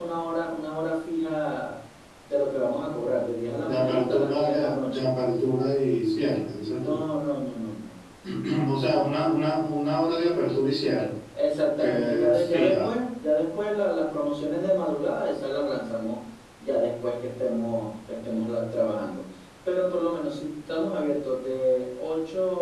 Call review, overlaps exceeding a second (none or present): present